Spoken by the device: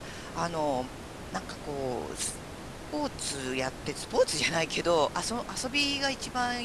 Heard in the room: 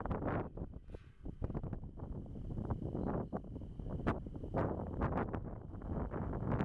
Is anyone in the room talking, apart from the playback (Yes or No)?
No